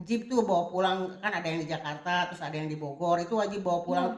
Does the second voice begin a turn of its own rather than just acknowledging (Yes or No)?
No